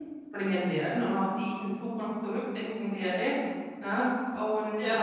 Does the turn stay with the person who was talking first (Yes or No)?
Yes